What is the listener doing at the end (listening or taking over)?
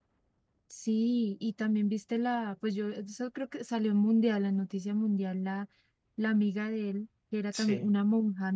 listening